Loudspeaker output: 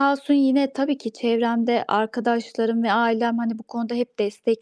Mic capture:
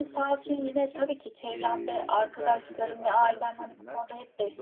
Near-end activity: present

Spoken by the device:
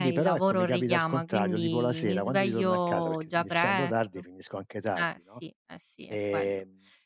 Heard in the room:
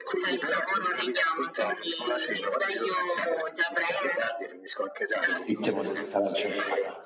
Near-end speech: present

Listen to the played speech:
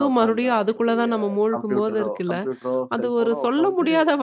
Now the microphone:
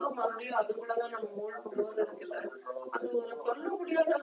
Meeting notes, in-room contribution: none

